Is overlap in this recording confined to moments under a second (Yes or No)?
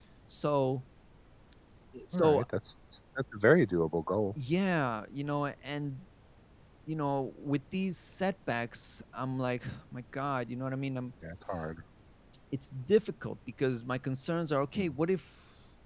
Yes